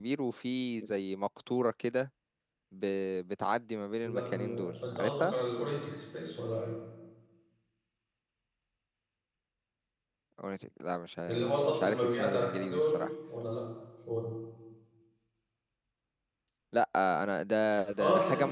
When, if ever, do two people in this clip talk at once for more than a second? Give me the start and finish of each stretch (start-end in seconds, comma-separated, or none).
4.0-5.3, 11.3-13.1